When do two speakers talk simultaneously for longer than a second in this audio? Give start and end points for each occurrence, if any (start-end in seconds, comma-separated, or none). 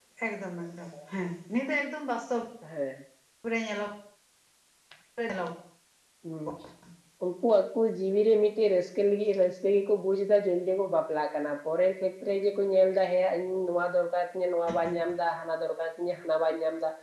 none